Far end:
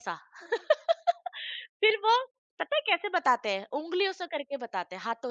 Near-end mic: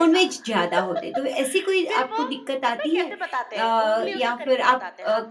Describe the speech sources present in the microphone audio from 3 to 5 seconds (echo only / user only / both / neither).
both